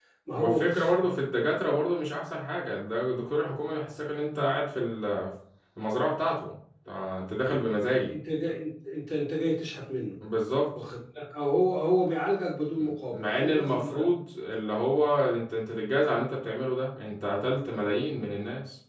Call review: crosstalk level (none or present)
present